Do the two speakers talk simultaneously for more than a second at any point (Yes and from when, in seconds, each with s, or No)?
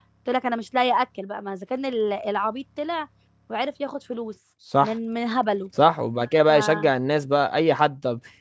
No